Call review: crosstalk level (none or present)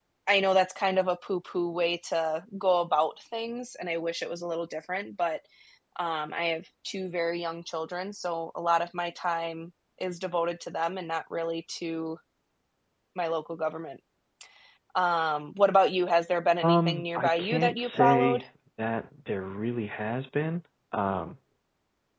present